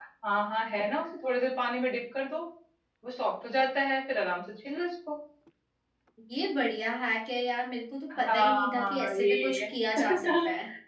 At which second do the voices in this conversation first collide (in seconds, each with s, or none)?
8.1 s